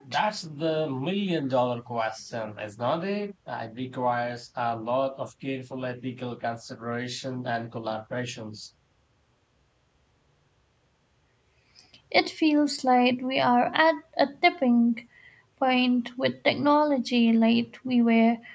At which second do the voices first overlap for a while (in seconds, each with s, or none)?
none